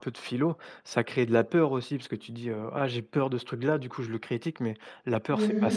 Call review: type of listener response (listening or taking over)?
listening